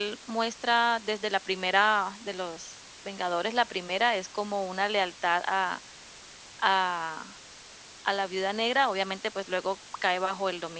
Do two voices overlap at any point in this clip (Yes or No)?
No